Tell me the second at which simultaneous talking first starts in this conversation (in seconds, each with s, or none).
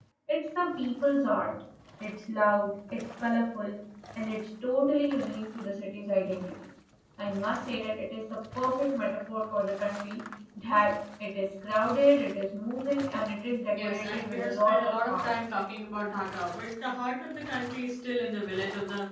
13.7 s